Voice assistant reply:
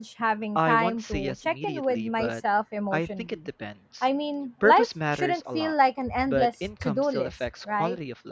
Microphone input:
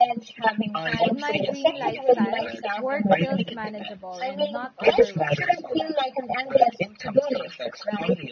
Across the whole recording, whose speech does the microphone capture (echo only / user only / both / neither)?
both